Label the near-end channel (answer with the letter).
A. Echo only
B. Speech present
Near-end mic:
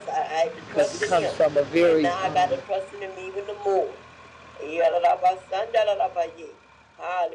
B